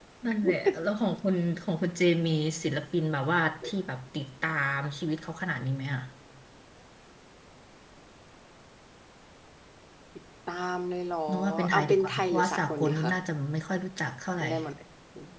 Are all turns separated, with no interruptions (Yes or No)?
No